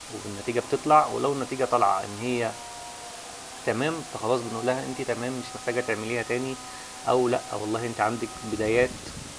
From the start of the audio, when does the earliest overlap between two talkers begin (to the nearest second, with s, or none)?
none